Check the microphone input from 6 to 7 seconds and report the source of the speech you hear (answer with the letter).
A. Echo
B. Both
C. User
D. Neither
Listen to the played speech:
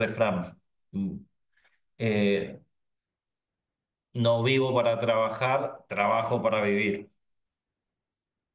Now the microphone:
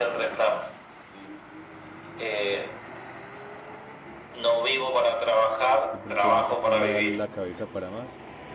B